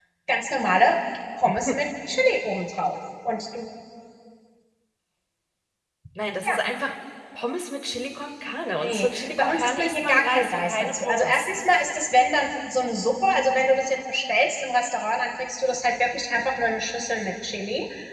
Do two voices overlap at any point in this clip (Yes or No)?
Yes